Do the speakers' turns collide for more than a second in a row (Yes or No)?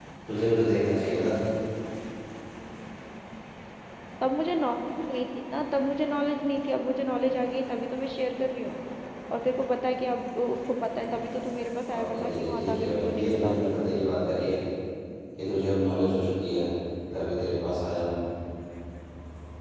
Yes